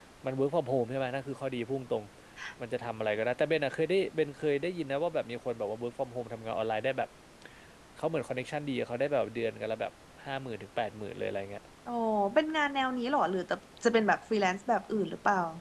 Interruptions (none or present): none